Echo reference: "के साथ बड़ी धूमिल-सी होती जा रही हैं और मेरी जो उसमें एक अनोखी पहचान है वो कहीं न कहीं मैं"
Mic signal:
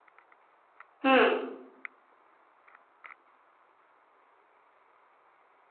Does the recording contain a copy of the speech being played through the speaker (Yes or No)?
No